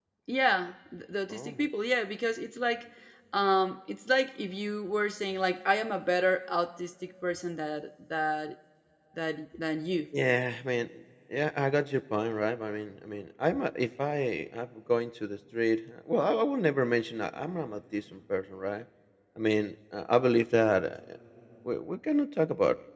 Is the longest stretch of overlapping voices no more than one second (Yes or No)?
Yes